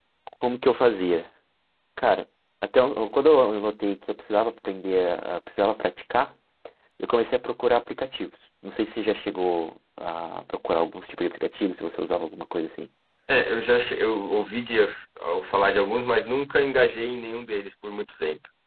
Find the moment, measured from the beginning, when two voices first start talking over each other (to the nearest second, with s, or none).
none